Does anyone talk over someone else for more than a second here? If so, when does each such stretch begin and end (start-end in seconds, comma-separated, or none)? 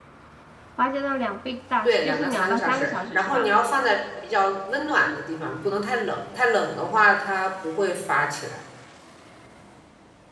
1.8-3.5